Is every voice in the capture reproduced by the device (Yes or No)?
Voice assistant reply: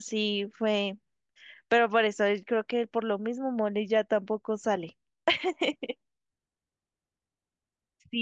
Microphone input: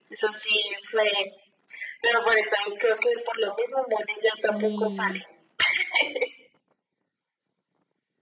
No